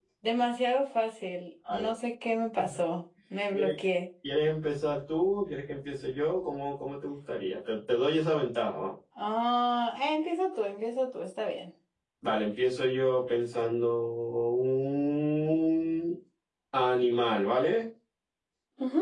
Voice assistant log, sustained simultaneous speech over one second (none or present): none